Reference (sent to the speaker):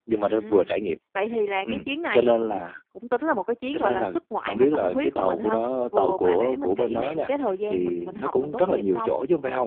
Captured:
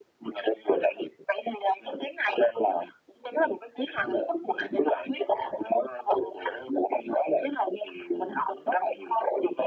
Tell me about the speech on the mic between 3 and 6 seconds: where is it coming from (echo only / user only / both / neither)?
echo only